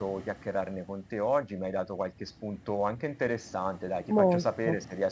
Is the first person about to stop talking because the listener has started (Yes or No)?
No